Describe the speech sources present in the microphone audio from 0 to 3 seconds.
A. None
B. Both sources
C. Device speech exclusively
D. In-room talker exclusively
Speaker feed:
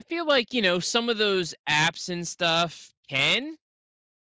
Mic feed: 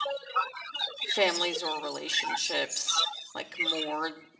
B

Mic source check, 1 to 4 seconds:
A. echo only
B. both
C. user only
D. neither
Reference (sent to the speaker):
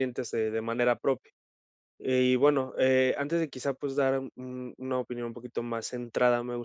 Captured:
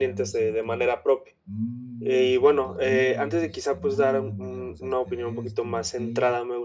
B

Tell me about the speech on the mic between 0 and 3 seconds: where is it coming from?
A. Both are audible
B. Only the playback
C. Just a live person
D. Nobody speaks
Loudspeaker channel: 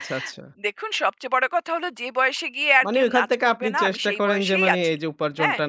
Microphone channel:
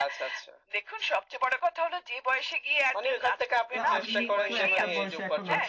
B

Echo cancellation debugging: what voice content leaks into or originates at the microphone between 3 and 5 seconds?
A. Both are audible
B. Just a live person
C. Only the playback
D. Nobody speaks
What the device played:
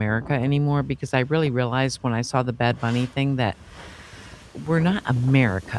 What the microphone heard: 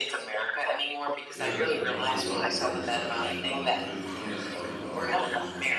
A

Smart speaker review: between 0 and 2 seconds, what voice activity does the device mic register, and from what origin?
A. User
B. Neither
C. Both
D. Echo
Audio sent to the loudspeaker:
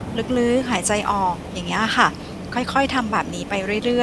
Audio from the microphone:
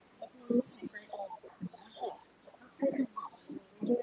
D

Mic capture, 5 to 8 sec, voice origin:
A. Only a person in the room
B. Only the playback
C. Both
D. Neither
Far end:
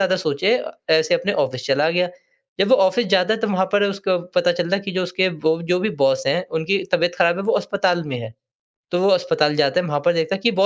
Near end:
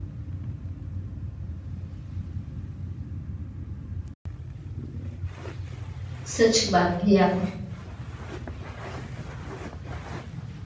A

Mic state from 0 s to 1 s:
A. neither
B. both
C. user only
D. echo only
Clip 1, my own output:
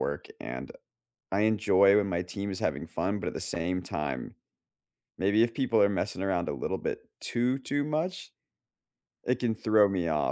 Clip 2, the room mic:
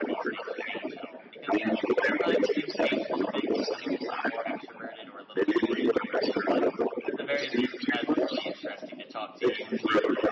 B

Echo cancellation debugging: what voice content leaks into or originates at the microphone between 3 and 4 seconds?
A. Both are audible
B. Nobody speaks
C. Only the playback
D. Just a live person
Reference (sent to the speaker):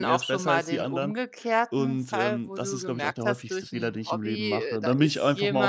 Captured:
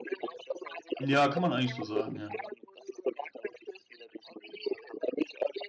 C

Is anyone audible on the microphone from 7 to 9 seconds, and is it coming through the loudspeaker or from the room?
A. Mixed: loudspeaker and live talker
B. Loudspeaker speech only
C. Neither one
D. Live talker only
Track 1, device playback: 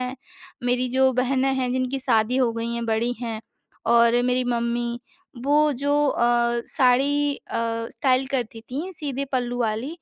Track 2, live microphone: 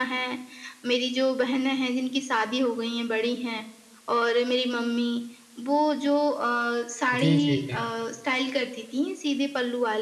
A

